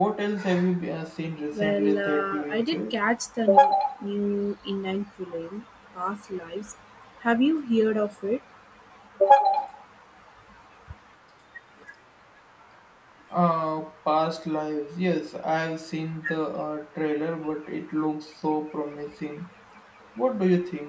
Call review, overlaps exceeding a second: present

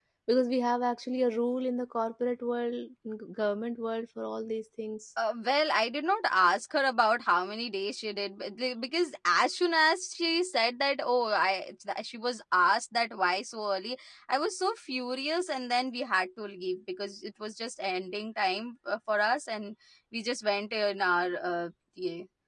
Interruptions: none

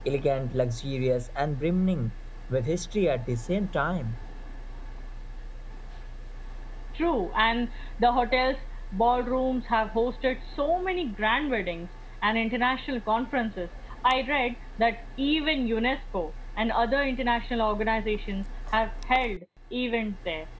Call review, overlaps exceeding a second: none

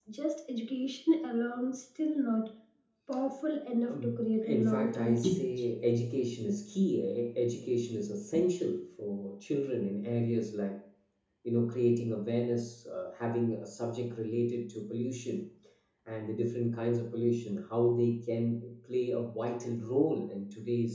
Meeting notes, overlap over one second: present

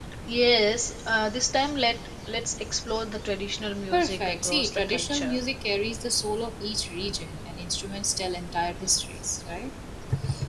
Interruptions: present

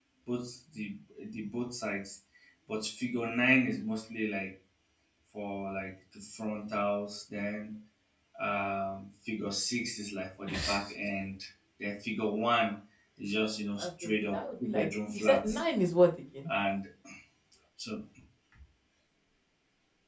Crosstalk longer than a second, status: present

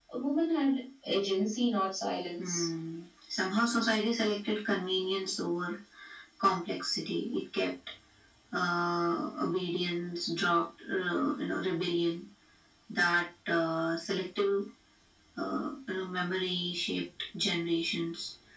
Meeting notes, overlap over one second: none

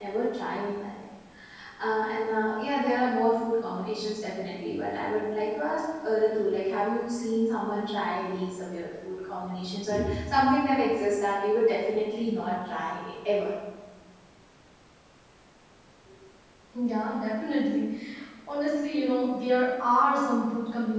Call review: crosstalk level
none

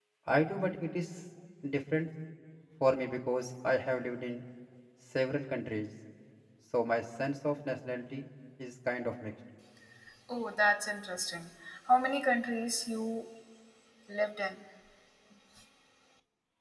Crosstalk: none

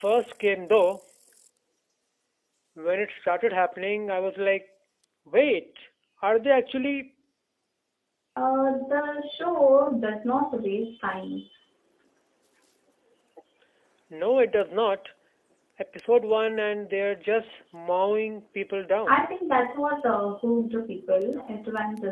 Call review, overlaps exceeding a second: none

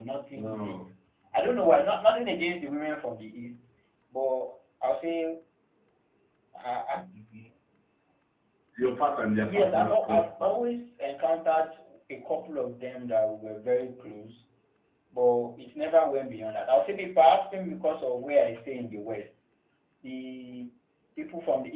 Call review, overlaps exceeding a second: present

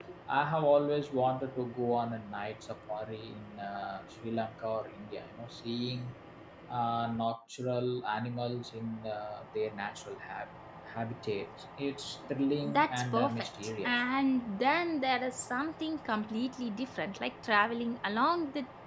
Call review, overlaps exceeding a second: present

